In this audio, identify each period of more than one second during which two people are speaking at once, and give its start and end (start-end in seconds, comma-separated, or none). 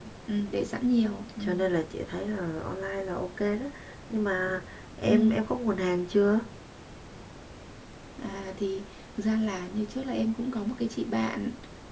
none